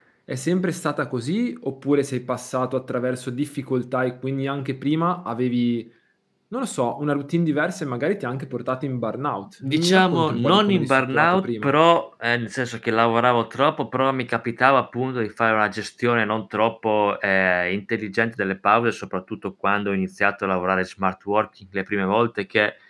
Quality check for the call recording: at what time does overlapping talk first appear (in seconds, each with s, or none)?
9.6 s